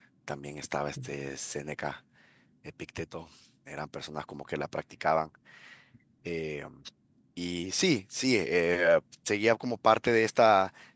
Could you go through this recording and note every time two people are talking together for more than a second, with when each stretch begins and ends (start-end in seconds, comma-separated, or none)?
none